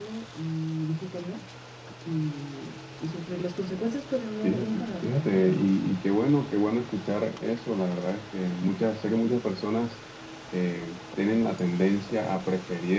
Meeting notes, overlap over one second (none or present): present